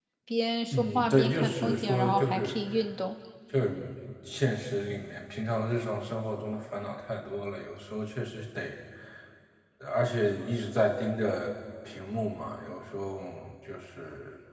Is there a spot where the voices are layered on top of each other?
Yes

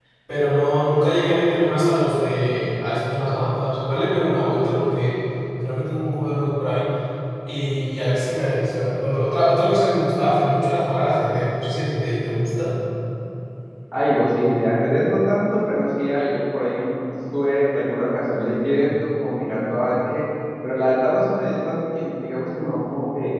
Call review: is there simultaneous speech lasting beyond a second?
No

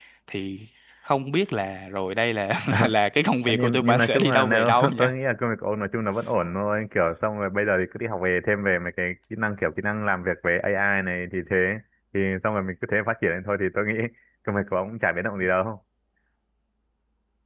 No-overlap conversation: No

